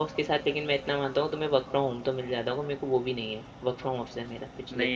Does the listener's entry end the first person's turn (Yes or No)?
Yes